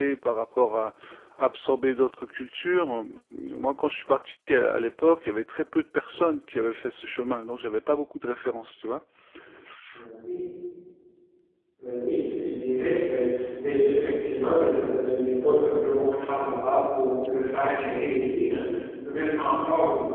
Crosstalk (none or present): none